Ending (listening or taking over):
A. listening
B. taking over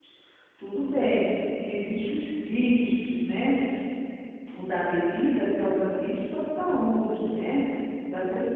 A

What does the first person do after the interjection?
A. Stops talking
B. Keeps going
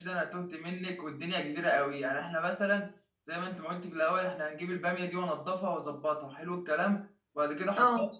B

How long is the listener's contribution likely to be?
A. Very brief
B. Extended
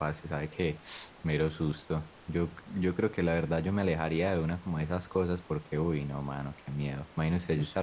A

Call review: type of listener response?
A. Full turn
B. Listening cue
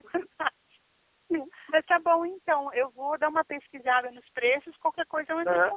A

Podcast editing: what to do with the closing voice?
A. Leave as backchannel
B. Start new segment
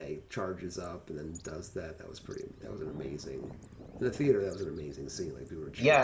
B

